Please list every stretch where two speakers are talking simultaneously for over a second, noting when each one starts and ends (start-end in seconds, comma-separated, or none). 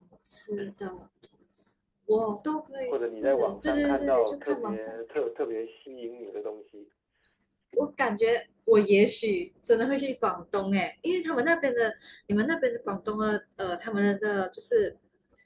2.9-5.0